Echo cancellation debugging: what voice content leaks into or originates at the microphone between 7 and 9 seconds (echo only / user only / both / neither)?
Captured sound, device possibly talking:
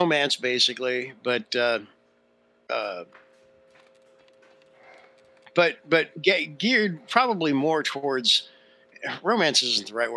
user only